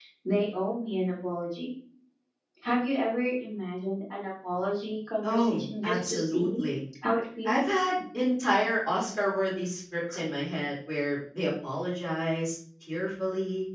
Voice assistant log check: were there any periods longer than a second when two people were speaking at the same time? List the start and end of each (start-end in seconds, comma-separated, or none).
5.2-6.6